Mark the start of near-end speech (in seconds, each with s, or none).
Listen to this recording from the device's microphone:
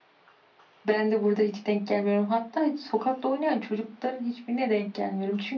none